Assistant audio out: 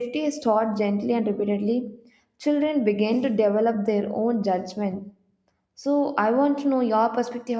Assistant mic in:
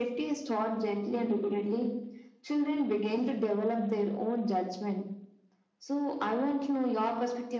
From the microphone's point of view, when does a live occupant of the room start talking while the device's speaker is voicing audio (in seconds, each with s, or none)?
none